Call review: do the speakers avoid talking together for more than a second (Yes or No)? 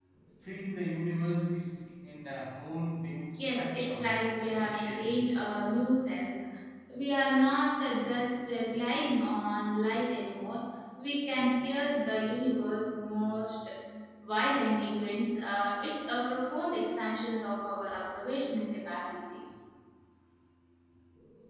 No